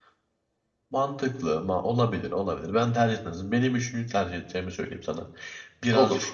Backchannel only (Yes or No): Yes